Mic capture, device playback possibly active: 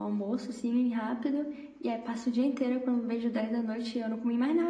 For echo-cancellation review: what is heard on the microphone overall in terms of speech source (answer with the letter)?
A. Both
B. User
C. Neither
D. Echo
D